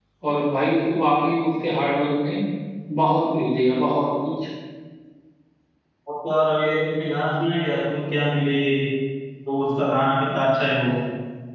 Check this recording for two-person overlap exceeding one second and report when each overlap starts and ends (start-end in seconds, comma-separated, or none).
none